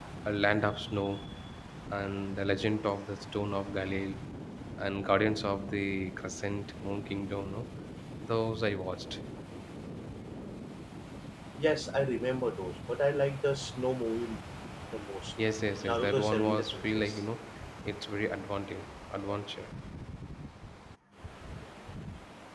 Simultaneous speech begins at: 15.8 s

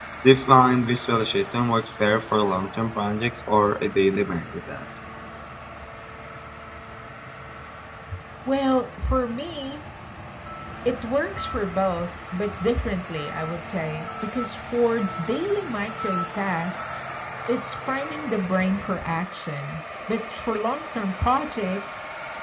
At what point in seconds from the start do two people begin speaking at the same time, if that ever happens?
none

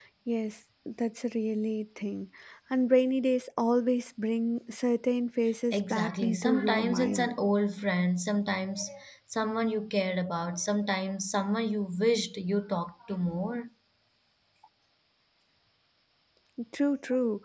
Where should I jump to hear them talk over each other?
5.7 s

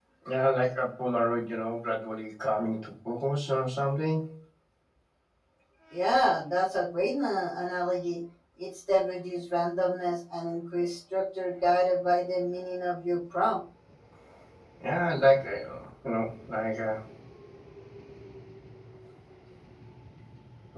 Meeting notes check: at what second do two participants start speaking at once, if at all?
none

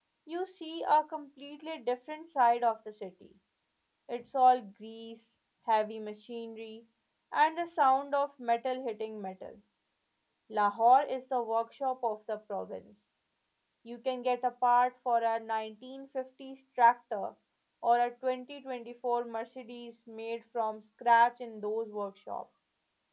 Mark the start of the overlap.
none

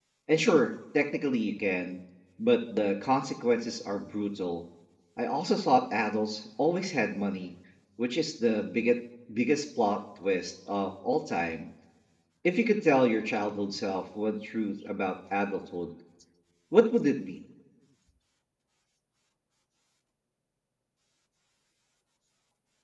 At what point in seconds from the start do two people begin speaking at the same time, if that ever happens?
none

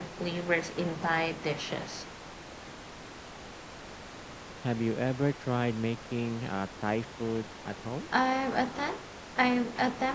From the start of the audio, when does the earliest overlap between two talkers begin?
none

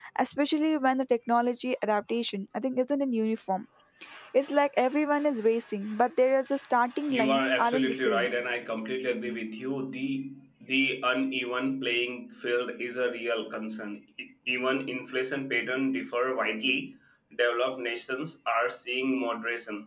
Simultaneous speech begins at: 7.1 s

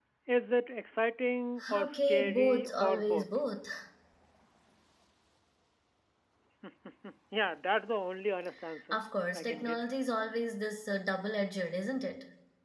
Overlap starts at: 1.7 s

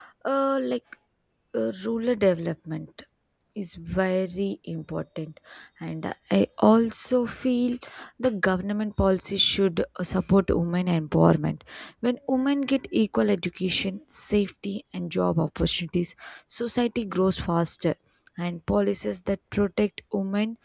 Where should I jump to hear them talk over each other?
none

